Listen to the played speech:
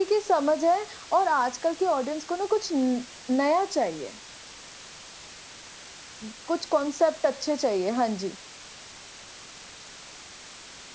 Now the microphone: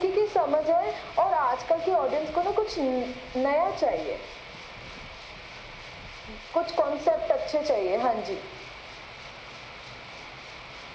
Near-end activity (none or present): none